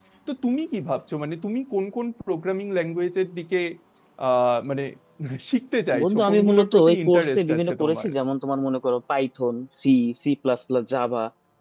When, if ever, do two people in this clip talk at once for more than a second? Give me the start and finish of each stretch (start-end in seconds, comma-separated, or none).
6.0-8.1